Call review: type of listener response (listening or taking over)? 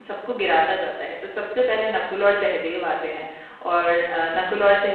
listening